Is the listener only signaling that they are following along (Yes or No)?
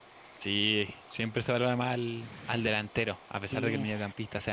Yes